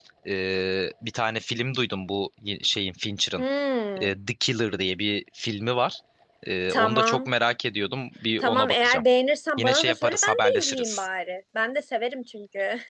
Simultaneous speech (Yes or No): Yes